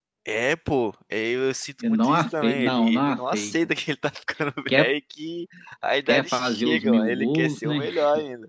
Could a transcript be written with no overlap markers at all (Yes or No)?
No